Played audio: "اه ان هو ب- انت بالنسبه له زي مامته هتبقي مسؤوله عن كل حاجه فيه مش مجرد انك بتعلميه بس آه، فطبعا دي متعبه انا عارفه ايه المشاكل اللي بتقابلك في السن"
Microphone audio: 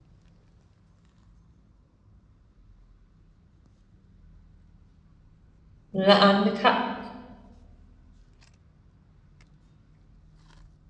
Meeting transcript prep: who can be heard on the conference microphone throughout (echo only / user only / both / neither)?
user only